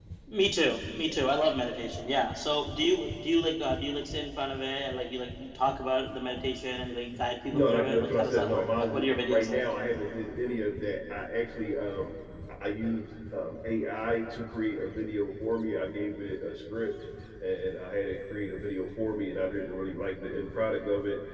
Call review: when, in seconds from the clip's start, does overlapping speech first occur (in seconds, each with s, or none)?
7.5 s